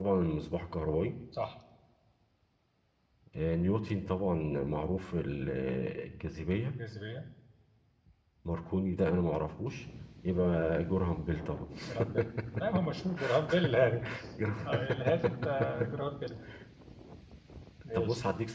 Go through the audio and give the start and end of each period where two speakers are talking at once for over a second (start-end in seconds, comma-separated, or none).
none